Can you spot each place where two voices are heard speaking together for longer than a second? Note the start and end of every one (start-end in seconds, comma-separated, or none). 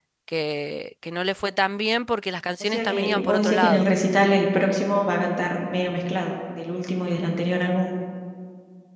2.6-3.9